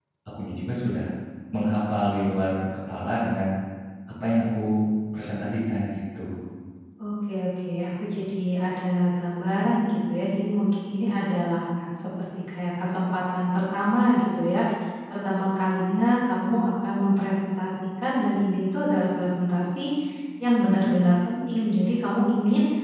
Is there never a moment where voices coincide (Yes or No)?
Yes